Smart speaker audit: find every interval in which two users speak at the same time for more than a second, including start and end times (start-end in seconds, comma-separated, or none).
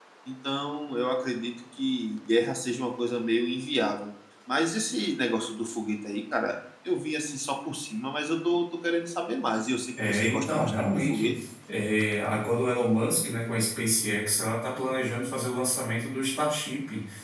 10.1-11.3